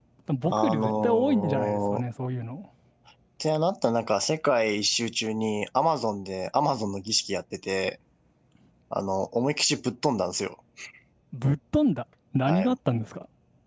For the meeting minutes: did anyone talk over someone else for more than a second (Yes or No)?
Yes